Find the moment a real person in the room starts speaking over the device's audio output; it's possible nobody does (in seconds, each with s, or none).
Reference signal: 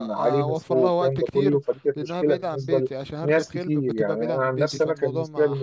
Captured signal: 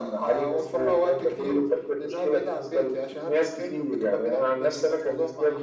none